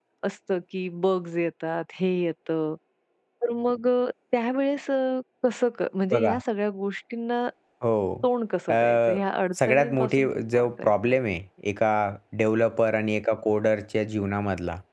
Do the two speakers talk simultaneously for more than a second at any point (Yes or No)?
Yes